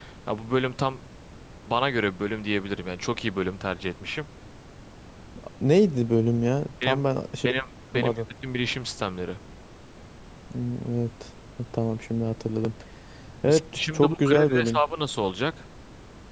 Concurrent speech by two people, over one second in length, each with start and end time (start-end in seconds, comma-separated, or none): 13.5-14.8